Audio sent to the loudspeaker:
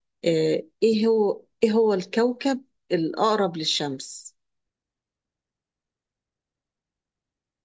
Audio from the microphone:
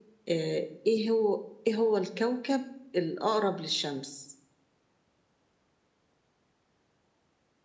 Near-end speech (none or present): none